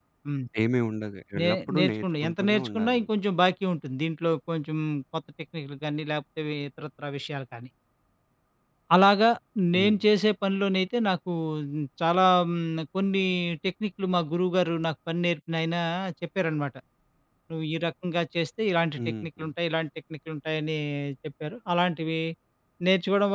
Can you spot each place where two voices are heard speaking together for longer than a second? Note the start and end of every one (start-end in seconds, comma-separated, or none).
1.4-3.1